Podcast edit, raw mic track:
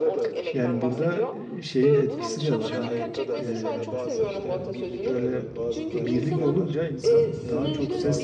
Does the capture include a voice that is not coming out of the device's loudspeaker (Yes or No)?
Yes